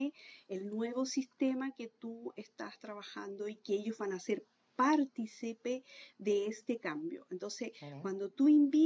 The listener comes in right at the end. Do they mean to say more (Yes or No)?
No